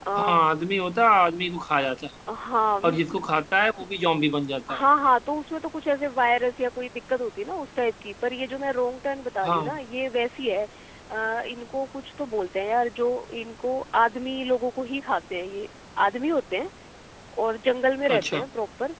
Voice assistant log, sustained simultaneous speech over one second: none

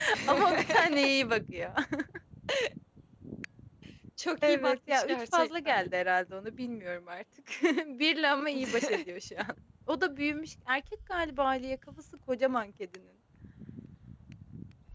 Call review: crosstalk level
present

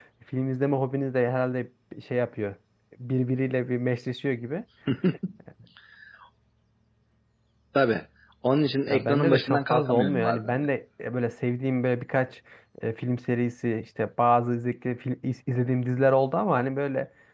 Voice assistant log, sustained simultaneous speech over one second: present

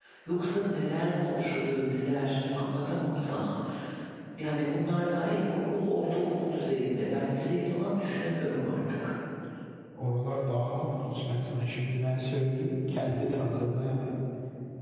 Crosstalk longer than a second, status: none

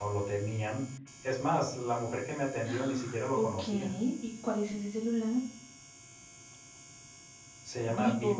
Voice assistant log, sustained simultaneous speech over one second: present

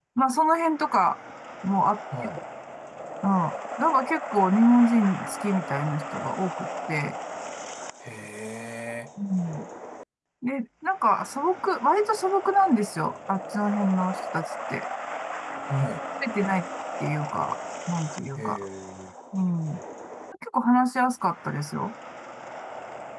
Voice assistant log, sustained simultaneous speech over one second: none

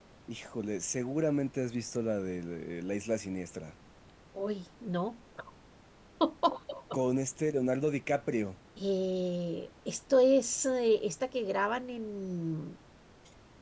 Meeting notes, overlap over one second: none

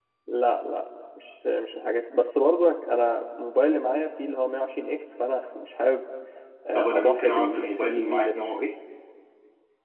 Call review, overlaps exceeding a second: present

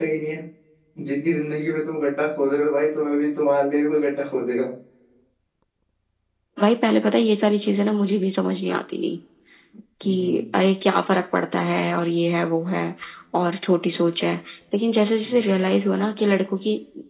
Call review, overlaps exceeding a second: none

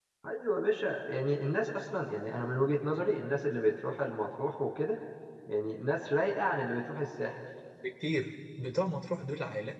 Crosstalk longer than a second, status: none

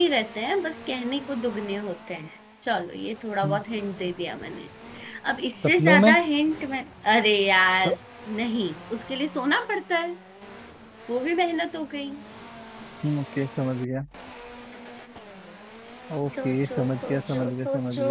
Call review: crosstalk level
present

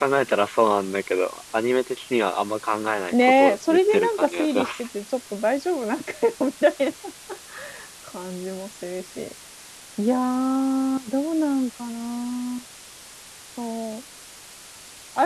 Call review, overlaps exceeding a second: present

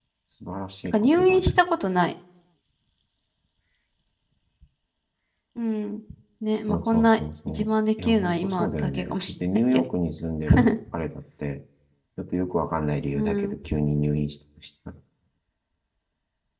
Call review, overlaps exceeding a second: present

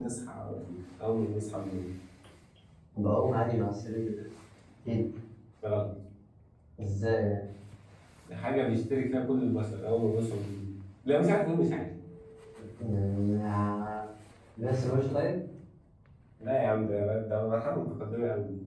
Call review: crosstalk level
none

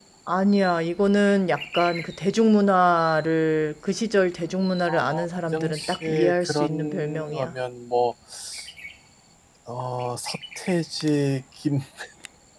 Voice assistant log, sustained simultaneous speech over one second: present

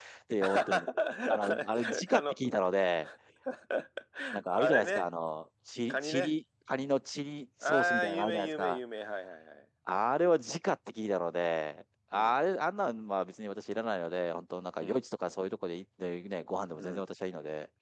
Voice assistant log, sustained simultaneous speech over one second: present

